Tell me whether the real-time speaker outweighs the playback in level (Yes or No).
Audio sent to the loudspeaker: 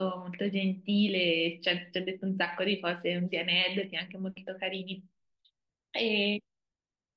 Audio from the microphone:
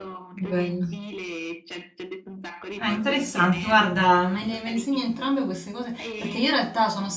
Yes